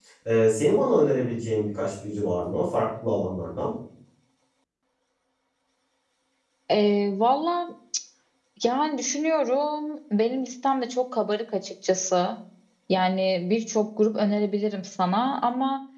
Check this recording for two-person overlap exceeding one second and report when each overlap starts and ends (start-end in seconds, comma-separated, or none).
none